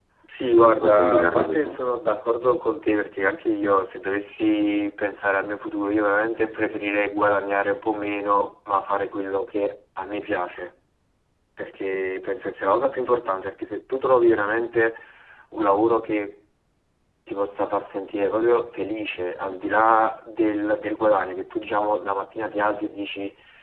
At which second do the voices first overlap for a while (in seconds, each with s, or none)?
0.5 s